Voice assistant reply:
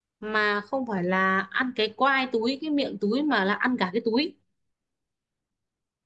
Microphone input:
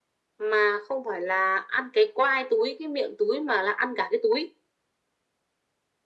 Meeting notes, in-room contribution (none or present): none